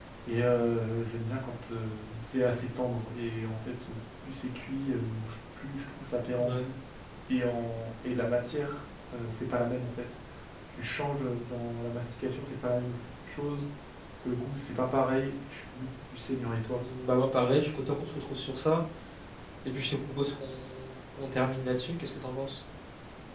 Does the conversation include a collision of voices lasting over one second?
No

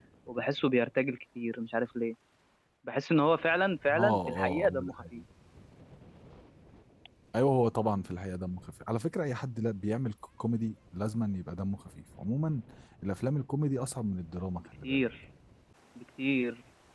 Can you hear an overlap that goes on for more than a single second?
Yes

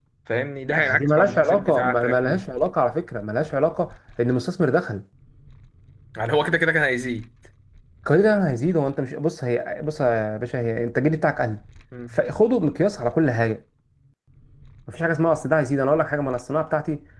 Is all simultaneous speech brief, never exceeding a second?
No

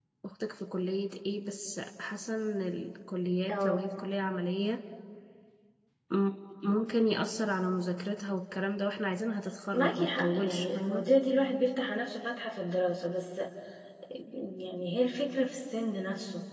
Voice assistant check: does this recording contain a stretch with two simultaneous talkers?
Yes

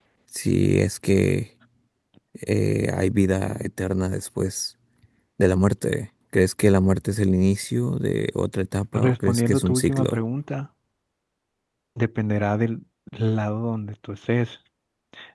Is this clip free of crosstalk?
No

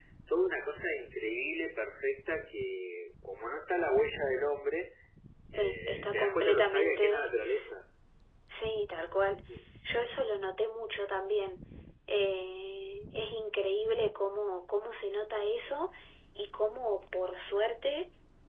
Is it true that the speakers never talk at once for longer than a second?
No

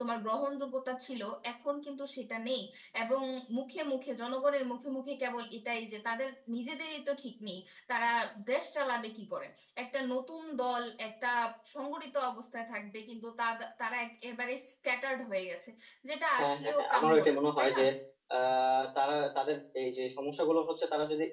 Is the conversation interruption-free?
No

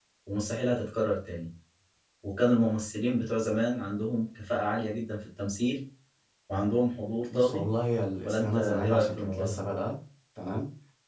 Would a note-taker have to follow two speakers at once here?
Yes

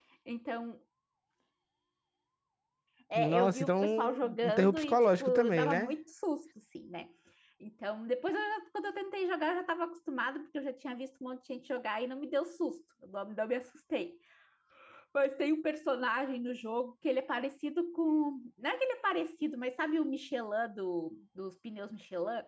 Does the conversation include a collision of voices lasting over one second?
Yes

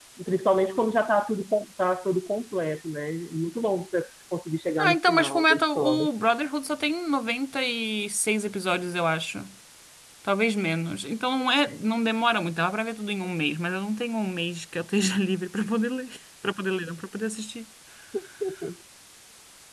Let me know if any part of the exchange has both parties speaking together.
Yes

